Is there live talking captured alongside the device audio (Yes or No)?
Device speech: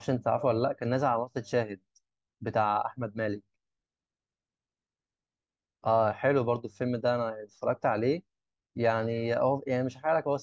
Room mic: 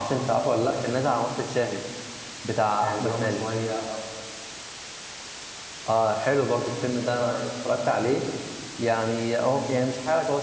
Yes